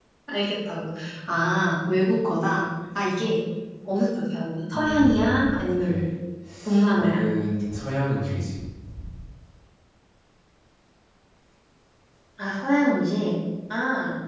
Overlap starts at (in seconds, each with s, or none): 4.7 s